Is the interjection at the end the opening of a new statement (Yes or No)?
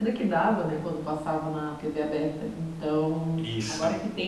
No